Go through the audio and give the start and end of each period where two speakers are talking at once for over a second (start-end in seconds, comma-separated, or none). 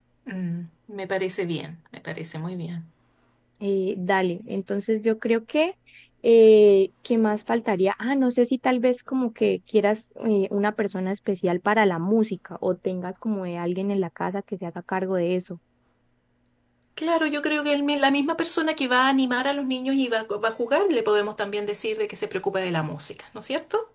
none